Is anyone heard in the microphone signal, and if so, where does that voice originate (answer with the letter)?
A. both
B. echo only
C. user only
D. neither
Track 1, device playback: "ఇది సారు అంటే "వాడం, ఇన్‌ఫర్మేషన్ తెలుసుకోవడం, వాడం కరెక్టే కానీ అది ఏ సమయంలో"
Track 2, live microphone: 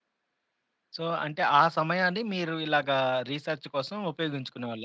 C